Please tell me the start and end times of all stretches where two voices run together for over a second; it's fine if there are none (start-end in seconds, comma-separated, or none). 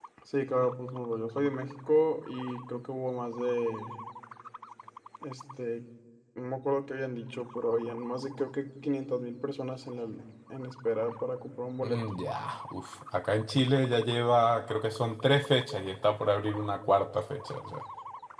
none